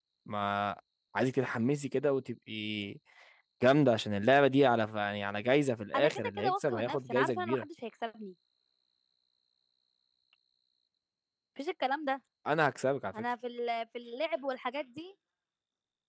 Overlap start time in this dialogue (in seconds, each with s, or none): 5.9 s